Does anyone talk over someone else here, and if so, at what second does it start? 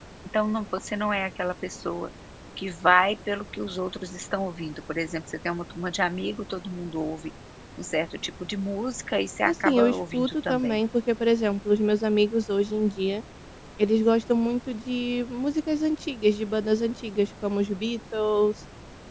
9.4 s

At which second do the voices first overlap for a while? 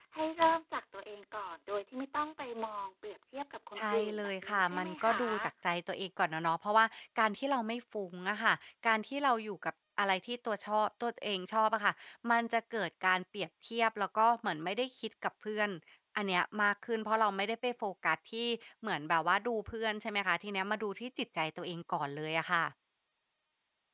3.8 s

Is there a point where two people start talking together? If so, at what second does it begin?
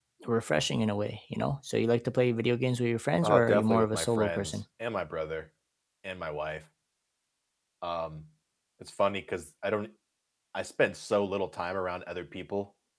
3.2 s

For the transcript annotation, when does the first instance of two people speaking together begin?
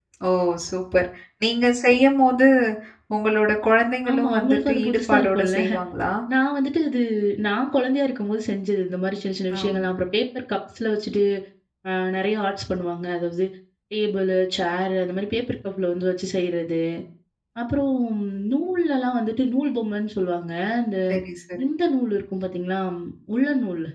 4.1 s

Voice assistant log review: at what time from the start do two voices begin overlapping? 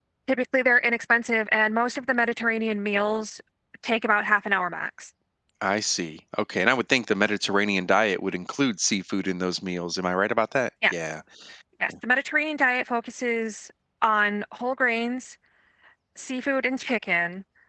none

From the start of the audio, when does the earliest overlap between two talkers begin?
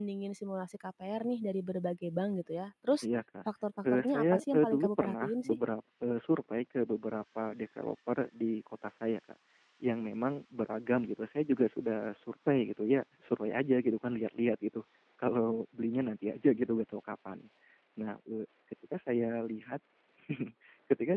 3.9 s

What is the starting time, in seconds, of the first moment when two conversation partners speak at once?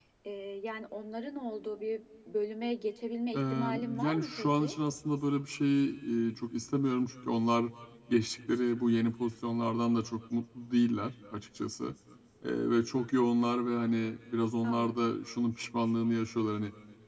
3.3 s

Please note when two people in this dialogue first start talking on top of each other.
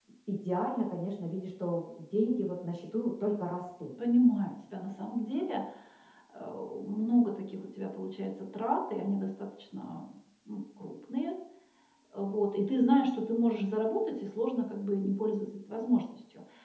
none

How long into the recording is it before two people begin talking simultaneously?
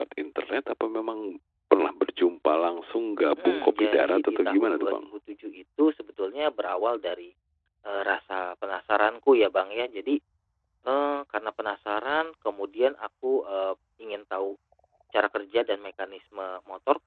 3.4 s

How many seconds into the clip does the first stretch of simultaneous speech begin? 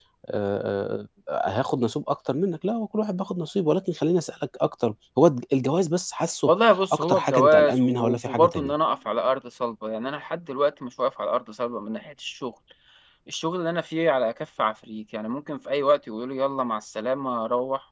6.9 s

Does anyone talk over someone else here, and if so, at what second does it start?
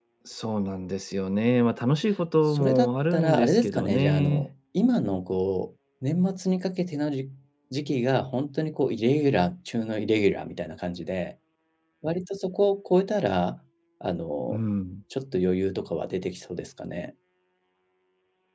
2.5 s

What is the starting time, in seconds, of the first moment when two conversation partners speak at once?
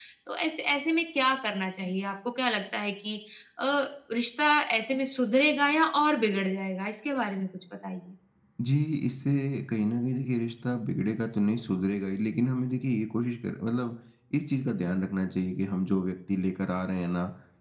none

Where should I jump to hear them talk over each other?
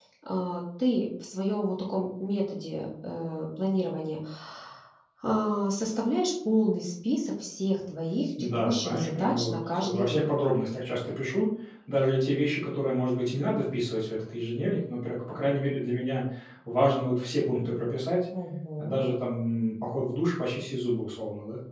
8.4 s

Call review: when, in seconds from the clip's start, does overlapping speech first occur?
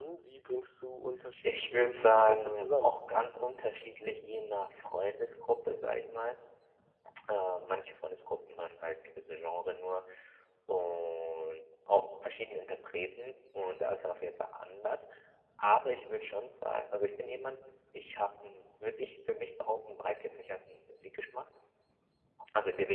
1.4 s

